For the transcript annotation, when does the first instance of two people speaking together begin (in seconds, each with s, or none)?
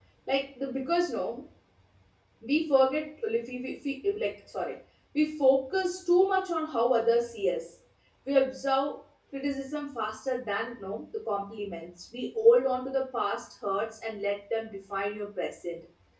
none